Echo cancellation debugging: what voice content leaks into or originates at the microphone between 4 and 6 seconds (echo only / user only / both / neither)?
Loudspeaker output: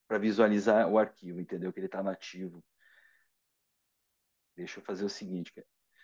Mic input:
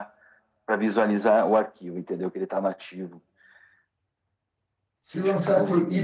both